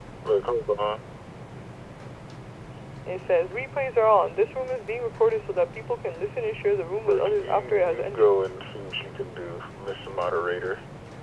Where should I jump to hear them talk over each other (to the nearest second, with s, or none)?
7 s